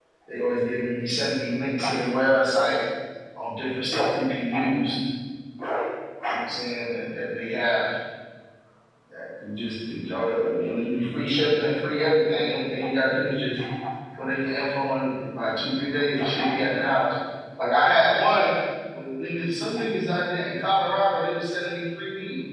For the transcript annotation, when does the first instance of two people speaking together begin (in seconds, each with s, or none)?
none